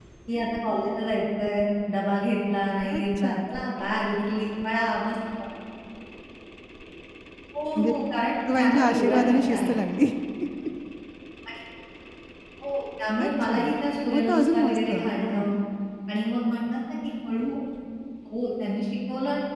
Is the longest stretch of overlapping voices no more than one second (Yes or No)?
No